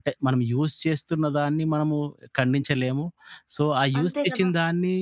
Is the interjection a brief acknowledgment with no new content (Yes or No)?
Yes